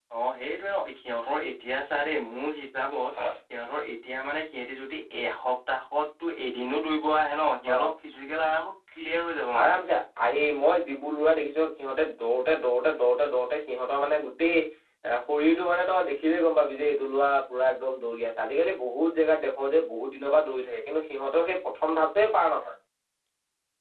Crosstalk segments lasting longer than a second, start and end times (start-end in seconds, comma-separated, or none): none